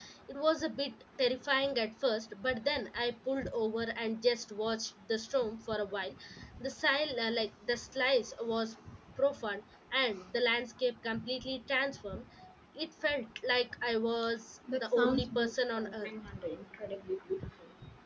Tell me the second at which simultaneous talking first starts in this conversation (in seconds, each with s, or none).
14.7 s